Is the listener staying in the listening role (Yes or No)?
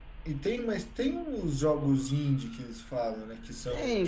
No